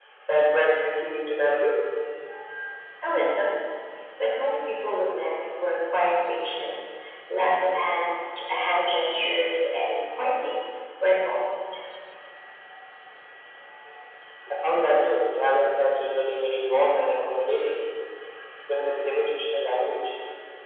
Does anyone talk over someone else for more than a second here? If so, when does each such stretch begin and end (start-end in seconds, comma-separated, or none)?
none